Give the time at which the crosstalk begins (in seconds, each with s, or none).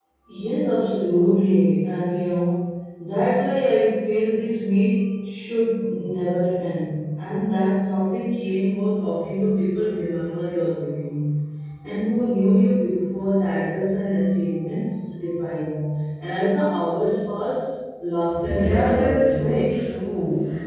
18.4 s